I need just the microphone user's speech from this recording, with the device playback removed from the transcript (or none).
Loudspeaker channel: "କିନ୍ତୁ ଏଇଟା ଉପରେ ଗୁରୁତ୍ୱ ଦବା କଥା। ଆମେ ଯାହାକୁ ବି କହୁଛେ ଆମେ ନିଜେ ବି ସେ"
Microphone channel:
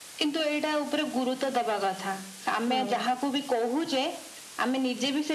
ହଁ